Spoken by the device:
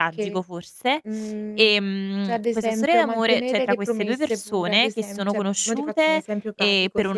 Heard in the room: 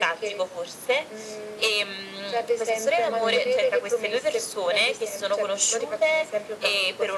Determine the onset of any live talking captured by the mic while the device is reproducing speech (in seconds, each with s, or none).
3.0 s